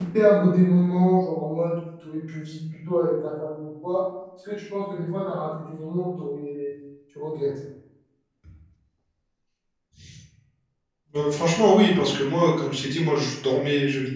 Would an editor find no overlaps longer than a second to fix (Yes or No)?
Yes